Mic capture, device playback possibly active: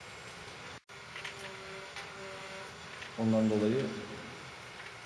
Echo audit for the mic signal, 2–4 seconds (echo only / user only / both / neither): user only